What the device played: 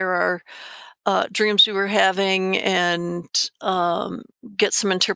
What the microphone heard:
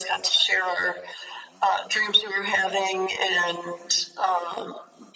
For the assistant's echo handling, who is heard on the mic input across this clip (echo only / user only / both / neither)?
echo only